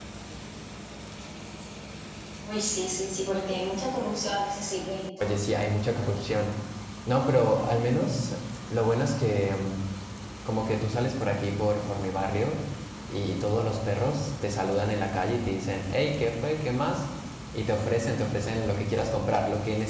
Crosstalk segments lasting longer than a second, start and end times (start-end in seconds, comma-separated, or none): none